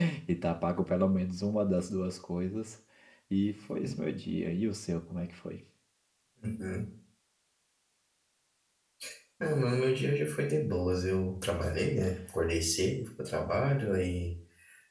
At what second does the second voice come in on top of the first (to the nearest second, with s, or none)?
none